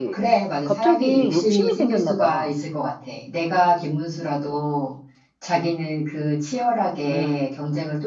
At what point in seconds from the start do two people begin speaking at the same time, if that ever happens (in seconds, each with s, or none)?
0.7 s